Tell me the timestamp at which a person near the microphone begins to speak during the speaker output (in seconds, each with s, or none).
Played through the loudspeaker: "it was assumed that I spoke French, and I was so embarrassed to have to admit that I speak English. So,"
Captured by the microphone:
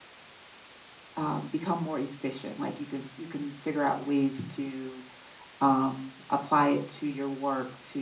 1.2 s